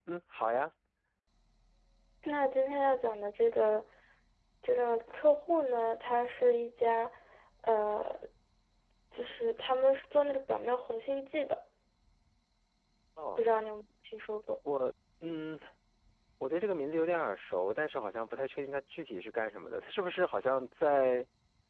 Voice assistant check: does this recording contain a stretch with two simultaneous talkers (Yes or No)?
No